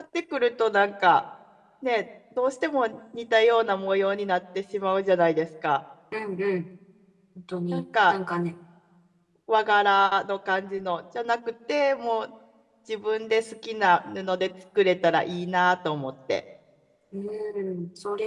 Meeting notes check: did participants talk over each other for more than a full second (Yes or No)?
No